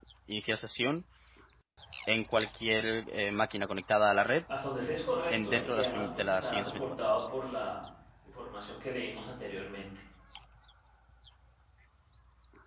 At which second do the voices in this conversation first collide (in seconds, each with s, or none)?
5.3 s